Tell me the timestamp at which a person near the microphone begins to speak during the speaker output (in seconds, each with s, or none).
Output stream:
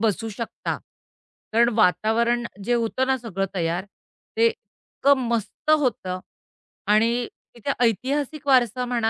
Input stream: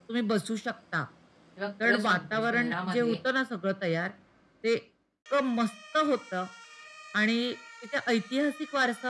1.6 s